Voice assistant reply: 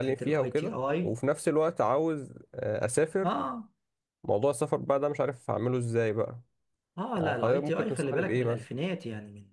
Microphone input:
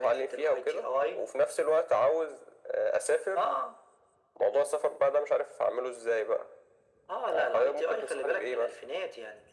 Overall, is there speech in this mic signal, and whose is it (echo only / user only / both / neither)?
echo only